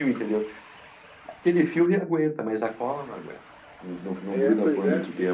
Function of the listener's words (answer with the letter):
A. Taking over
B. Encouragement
A